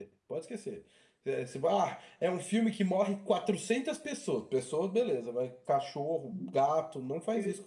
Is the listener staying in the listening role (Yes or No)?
No